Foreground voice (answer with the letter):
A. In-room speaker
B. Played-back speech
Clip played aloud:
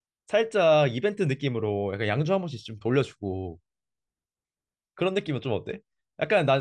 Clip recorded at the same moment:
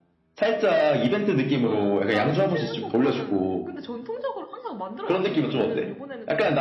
B